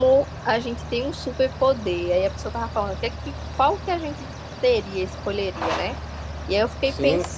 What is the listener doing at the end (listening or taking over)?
listening